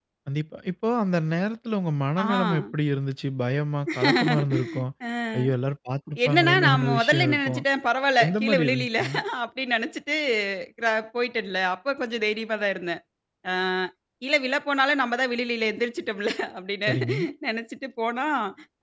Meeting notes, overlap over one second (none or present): present